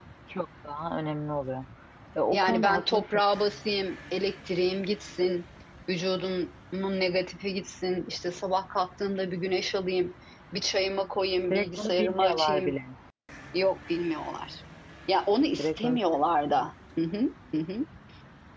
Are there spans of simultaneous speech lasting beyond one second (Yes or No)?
Yes